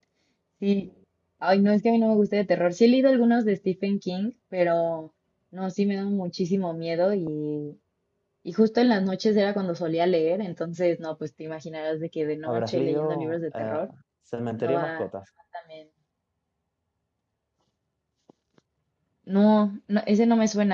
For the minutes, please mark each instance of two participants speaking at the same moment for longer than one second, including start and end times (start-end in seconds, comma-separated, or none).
12.4-13.8